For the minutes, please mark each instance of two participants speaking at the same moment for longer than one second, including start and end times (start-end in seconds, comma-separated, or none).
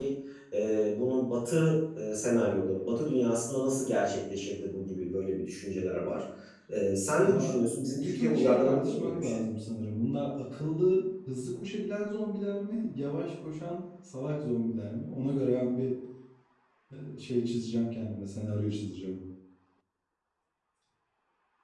8.0-9.4